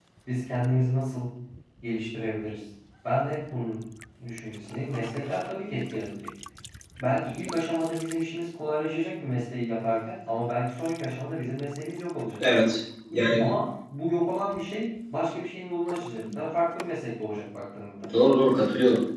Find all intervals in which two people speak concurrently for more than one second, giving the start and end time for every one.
none

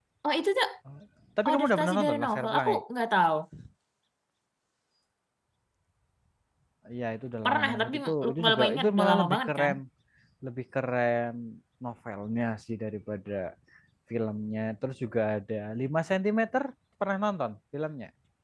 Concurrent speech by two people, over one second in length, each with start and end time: 1.5-2.8, 7.4-9.7

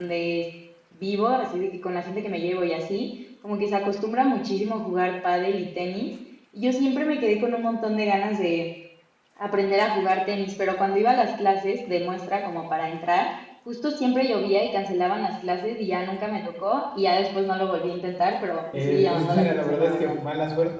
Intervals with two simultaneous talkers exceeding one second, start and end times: 18.7-20.2

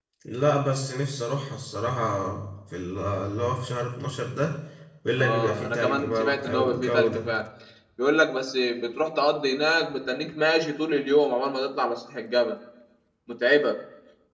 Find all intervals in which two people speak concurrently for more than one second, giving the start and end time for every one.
5.2-7.3

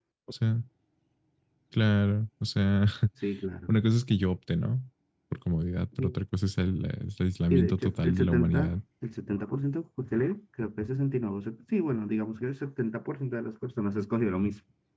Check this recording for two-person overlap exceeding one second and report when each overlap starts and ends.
7.5-8.8

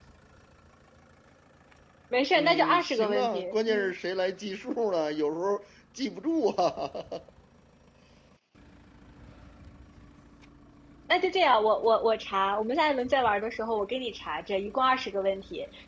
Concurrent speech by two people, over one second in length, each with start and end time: 2.4-3.9

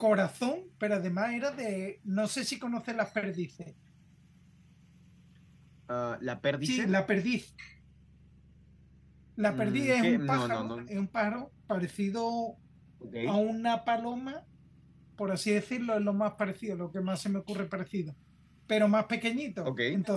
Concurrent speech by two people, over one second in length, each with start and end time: 9.5-10.7

